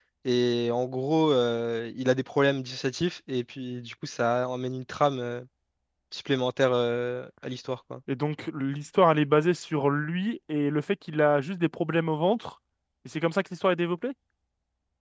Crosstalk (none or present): none